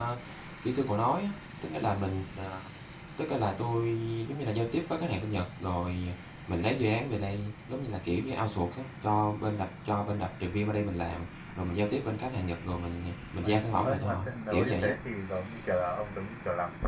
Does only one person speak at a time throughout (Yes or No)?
No